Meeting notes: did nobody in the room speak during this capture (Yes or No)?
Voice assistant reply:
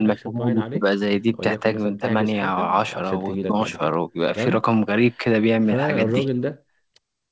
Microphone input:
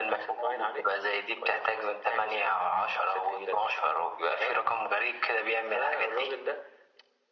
Yes